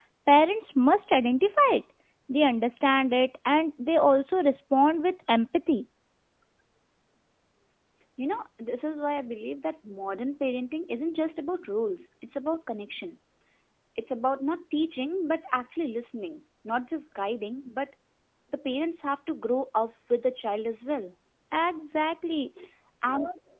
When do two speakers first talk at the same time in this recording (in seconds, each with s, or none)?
none